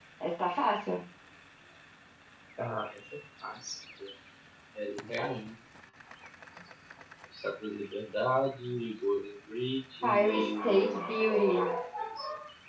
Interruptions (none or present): present